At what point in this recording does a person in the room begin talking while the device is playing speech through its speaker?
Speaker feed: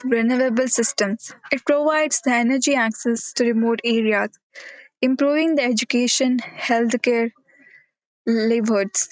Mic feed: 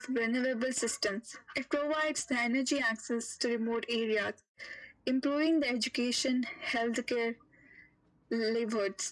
none

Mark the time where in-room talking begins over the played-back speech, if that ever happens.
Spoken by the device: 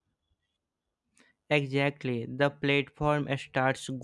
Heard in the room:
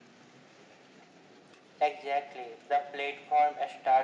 none

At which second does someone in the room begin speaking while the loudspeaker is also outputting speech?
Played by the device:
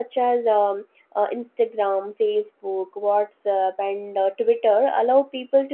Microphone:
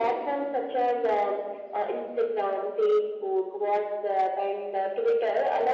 none

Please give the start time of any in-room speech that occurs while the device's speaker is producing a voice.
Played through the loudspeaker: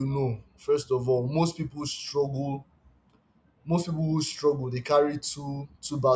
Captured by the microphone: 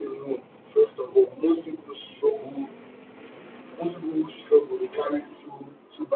none

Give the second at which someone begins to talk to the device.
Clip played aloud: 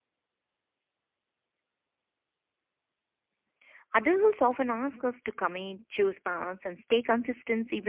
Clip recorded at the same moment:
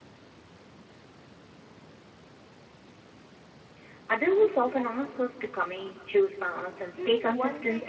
7.0 s

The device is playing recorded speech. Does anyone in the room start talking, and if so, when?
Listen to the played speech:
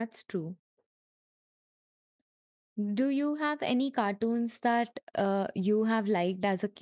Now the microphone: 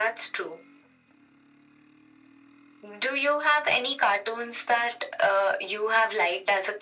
none

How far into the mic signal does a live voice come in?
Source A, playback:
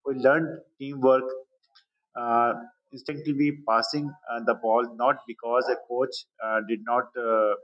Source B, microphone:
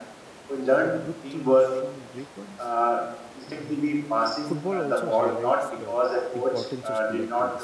0.7 s

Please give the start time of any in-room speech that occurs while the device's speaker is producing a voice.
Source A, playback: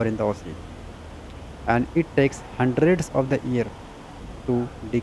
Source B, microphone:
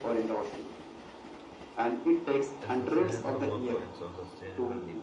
2.6 s

